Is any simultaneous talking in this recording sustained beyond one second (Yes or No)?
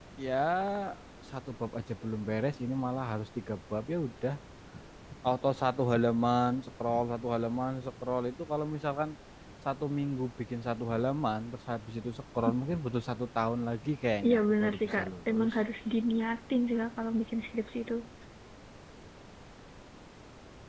Yes